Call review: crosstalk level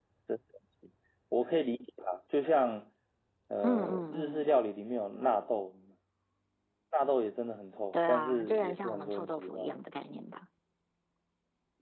present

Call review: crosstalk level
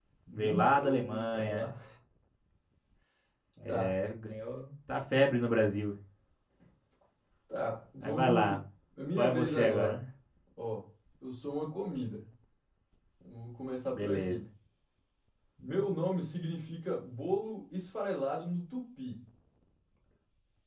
present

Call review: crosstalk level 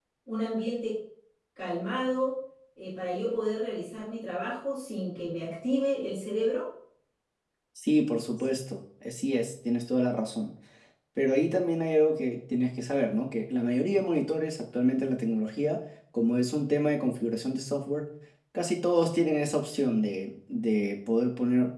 none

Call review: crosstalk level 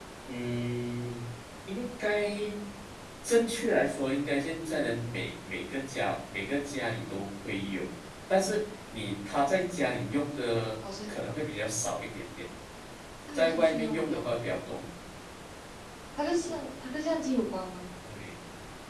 present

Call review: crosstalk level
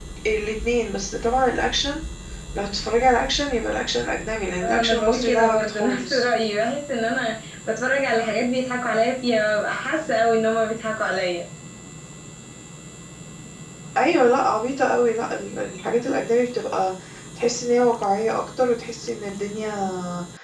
present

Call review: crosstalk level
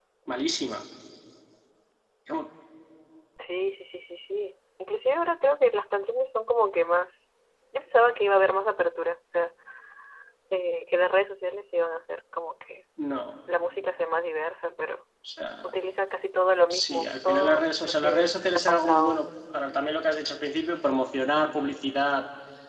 present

